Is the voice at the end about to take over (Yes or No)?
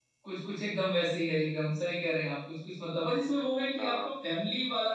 No